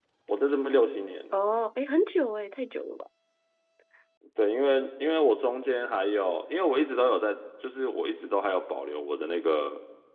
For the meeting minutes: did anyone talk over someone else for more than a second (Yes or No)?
No